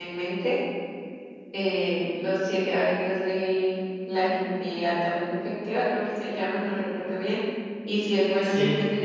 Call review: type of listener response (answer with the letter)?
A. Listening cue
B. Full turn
A